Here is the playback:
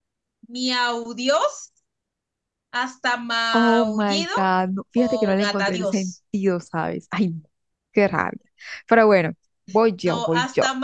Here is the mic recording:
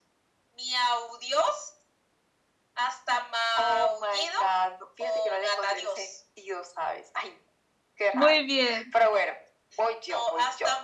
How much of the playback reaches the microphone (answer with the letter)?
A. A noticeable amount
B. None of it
A